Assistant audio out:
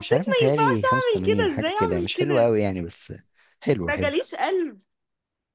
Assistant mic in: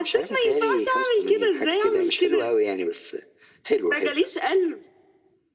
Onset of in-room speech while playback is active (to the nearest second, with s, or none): none